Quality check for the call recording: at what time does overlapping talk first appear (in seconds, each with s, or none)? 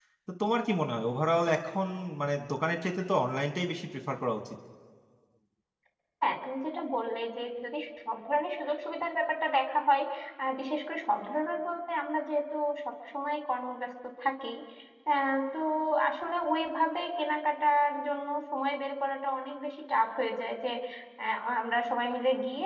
none